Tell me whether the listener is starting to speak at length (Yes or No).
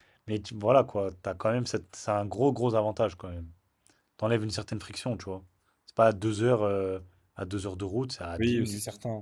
Yes